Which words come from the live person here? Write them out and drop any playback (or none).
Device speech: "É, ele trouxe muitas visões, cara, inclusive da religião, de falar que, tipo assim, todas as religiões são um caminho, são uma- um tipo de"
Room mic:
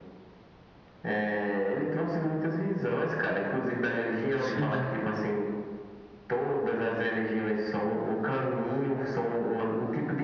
sim.